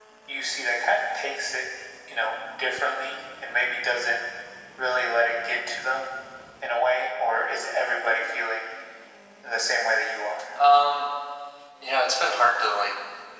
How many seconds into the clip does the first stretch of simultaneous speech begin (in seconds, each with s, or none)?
none